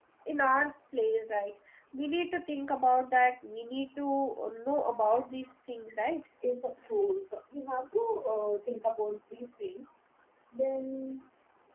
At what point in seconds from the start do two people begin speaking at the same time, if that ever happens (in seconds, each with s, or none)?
none